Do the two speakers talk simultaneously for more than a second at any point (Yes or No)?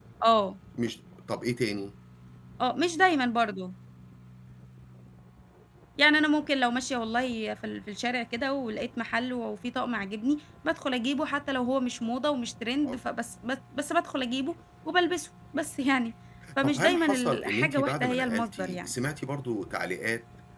Yes